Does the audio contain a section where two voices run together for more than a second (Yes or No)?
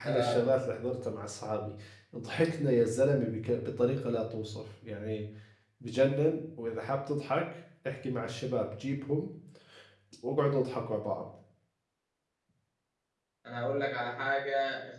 No